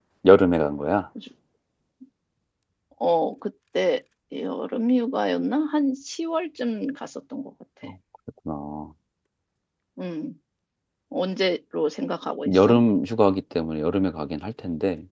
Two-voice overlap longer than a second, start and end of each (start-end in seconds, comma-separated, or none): none